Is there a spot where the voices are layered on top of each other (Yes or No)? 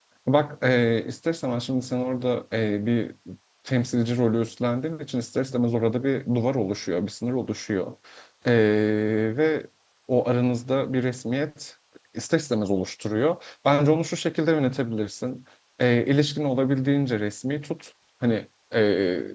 No